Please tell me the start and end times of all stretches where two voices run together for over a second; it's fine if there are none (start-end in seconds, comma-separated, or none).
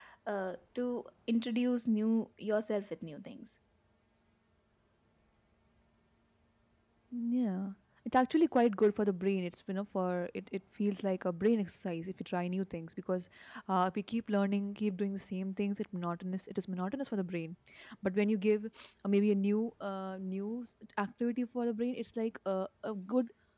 none